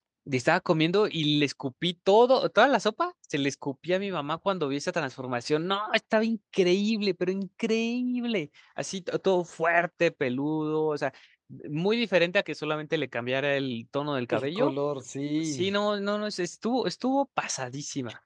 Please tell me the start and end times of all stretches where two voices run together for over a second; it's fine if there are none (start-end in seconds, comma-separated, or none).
none